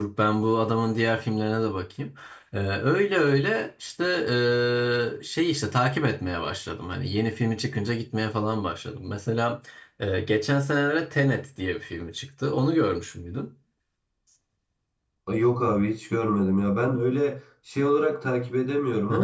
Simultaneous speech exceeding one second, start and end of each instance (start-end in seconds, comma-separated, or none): none